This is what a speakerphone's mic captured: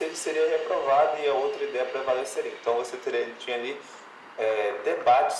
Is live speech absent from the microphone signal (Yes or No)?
Yes